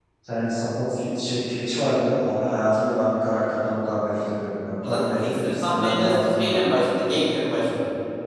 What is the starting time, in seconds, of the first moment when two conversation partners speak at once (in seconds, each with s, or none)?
4.8 s